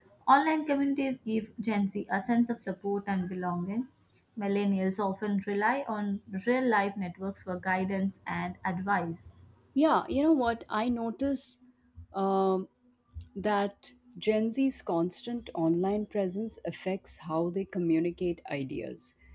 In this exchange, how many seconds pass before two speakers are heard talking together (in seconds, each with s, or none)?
none